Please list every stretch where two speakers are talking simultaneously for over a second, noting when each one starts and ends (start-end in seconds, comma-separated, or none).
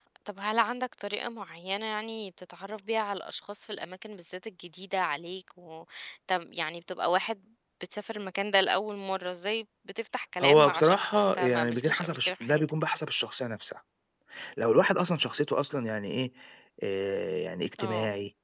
10.4-12.6